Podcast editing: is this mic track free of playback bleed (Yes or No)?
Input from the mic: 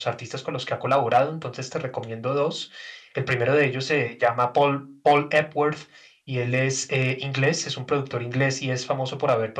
Yes